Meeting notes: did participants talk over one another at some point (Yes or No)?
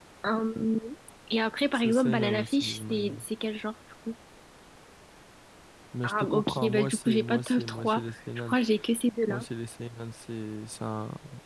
Yes